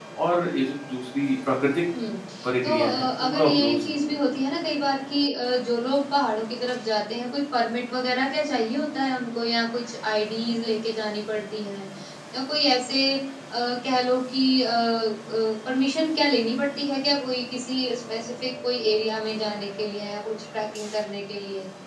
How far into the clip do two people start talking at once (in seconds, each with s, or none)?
2.6 s